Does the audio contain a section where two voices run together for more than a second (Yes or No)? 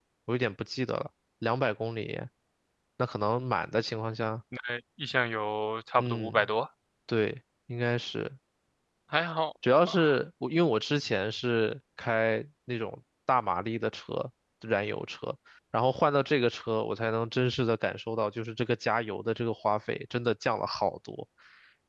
No